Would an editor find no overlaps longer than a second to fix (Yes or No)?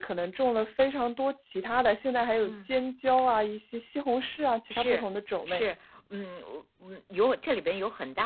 Yes